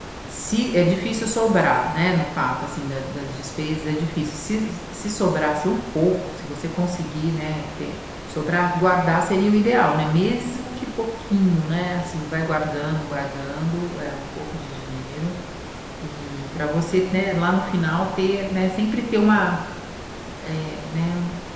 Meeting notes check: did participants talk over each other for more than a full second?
No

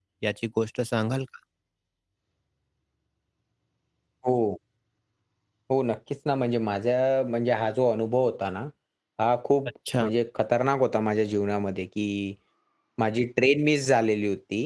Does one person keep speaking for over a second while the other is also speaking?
No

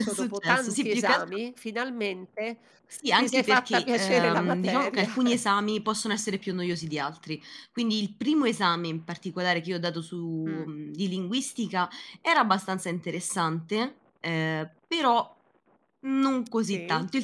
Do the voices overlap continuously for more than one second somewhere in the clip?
Yes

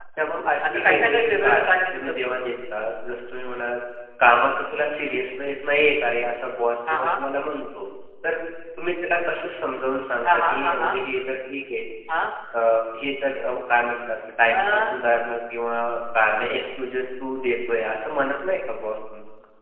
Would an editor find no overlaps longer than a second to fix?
No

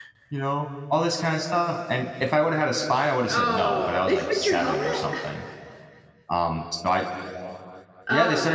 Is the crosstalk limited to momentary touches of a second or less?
No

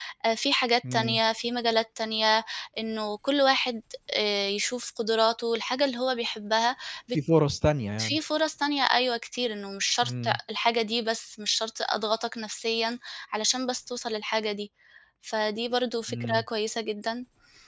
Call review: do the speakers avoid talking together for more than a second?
Yes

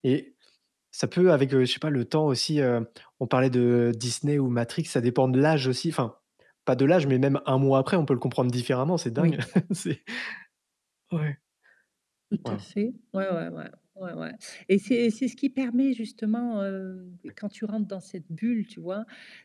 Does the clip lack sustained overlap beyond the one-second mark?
Yes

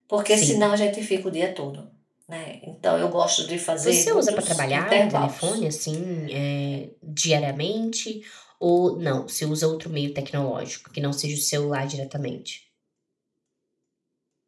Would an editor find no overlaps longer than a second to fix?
No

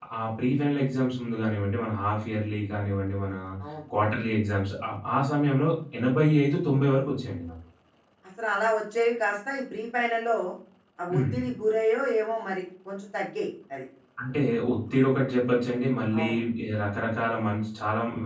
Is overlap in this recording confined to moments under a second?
Yes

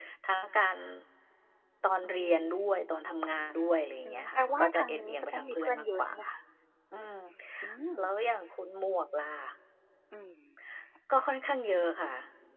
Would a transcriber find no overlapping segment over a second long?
No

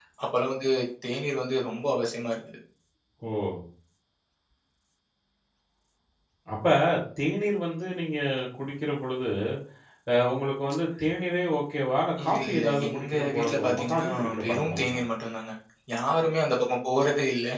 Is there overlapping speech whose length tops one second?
Yes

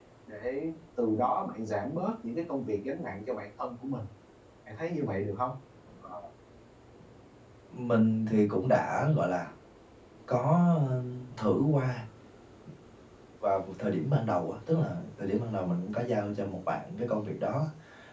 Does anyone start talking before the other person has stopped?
No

